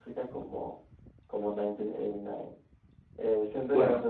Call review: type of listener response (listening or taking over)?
listening